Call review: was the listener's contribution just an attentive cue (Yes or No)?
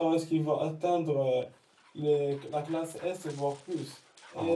Yes